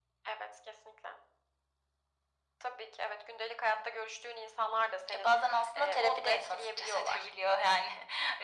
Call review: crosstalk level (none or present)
present